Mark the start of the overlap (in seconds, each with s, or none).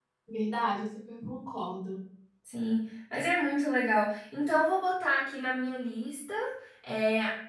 none